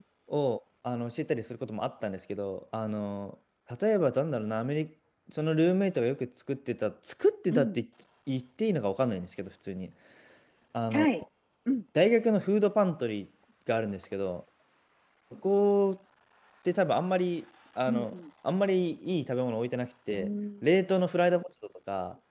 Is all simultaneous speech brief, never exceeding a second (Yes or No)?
Yes